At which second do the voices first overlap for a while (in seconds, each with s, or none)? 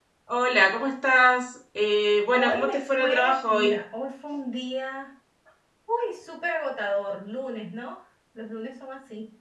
2.3 s